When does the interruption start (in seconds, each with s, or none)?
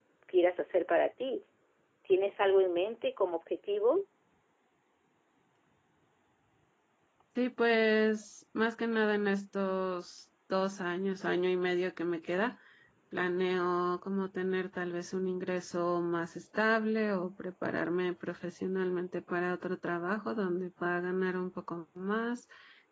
none